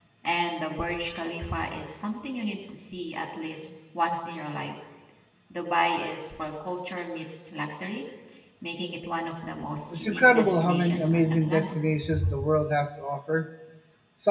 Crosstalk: present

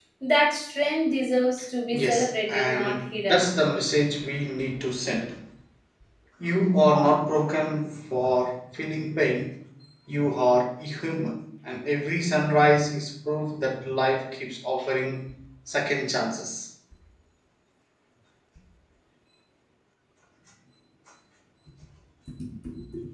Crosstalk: present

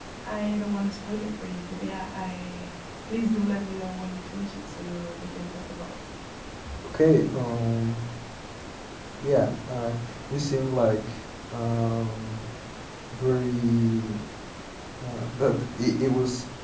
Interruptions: none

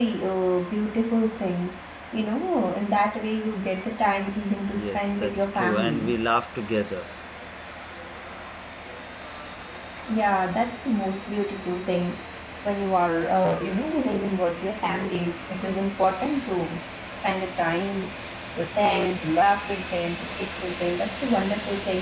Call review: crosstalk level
present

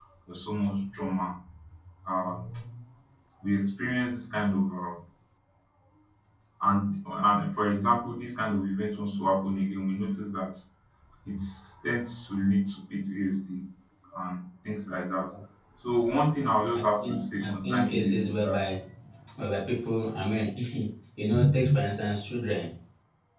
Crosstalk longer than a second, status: present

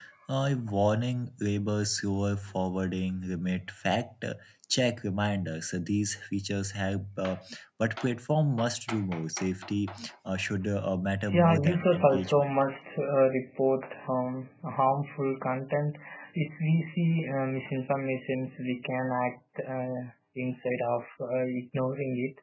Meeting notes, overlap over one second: present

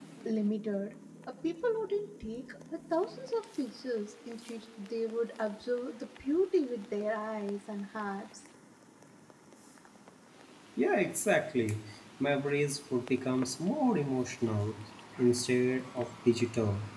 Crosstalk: none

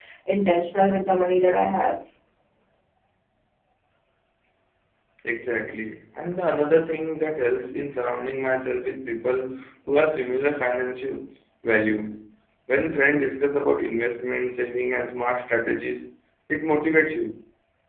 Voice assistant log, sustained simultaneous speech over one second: none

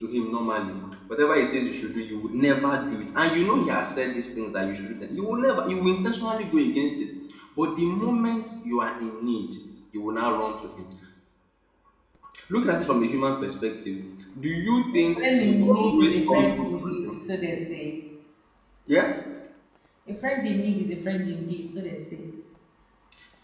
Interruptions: present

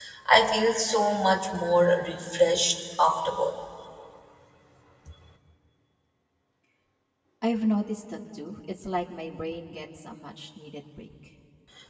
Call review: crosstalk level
none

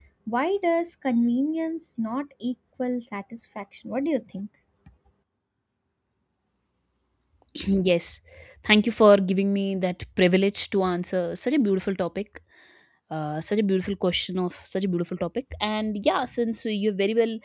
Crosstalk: none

